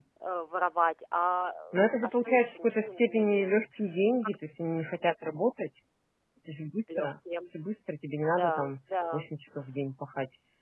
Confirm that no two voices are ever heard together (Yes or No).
No